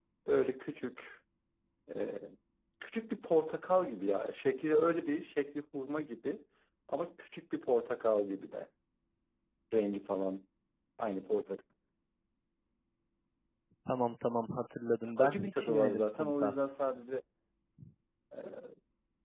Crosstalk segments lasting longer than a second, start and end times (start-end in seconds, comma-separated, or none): 15.2-16.5